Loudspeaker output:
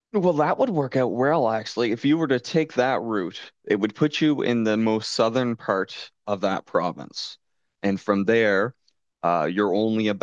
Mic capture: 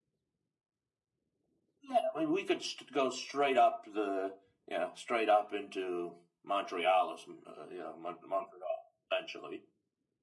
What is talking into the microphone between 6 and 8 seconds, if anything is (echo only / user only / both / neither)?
user only